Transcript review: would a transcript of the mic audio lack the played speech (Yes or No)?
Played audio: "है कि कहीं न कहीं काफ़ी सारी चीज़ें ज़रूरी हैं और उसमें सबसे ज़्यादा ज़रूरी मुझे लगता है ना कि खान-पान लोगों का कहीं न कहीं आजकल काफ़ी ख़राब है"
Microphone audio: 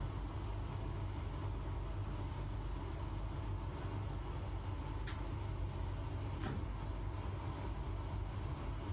Yes